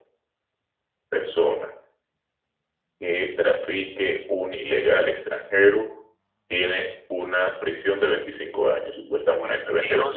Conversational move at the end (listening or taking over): taking over